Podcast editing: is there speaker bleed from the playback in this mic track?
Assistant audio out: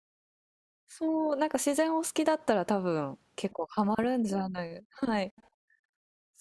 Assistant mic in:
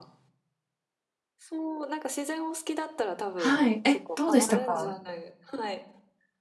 Yes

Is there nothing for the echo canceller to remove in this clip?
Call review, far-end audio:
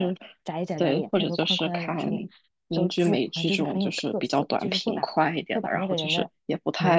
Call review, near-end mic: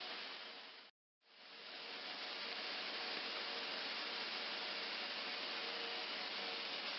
Yes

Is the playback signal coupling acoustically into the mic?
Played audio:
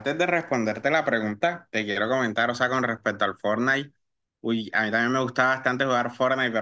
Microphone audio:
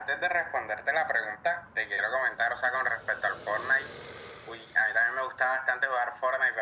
Yes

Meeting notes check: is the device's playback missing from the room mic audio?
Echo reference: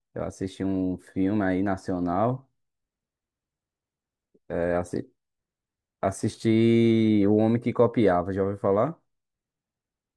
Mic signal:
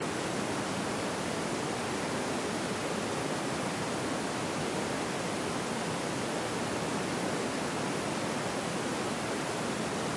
Yes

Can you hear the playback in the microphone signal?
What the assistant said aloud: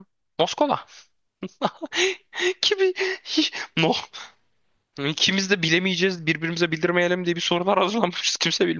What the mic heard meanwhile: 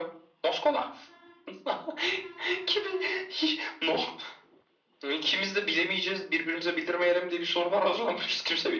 Yes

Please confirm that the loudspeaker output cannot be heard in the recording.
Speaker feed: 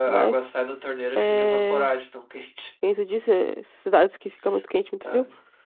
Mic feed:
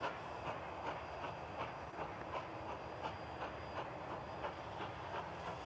Yes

